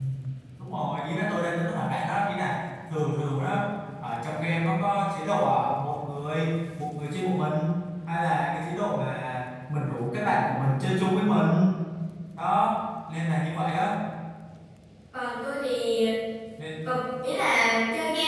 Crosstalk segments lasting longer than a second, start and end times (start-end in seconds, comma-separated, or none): none